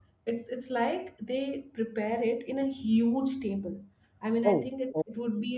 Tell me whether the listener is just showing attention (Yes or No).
Yes